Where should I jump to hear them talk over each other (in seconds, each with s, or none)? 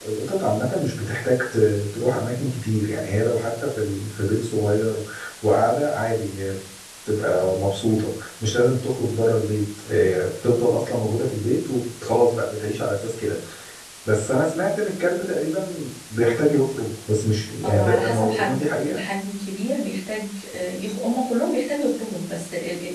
17.6 s